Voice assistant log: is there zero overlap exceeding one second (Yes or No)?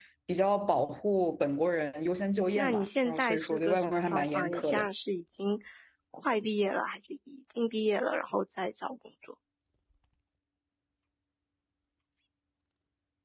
No